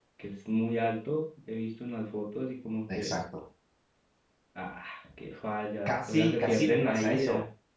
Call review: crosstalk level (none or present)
present